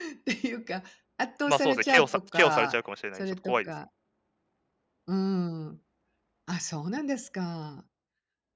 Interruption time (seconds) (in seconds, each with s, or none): 1.5 s